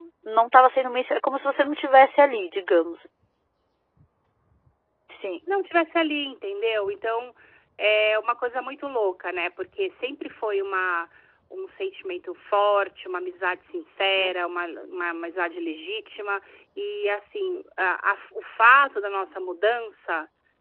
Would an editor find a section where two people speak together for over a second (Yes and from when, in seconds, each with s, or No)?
No